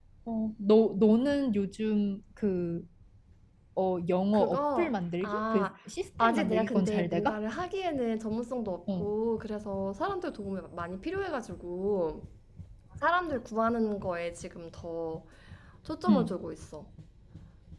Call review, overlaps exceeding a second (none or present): present